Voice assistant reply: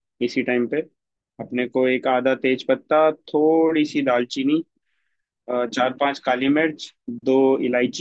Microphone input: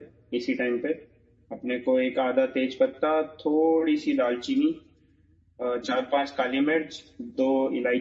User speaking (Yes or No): No